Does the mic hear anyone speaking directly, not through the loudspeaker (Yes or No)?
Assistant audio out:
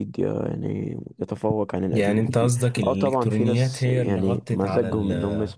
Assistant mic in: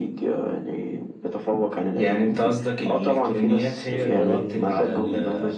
Yes